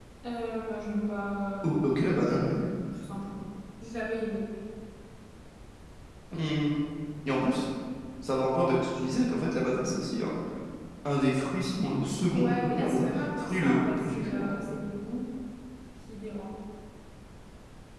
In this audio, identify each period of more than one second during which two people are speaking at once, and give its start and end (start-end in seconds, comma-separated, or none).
12.3-14.8